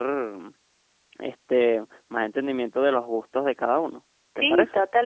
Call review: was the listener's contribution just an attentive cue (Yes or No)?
No